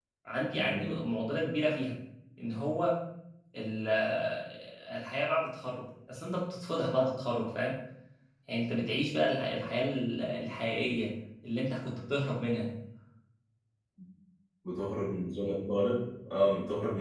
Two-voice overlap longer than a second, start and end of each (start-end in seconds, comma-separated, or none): none